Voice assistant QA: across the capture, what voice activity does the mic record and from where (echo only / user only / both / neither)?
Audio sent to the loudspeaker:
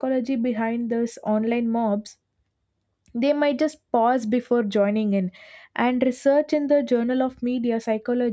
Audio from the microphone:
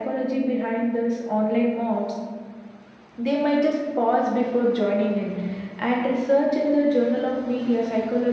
echo only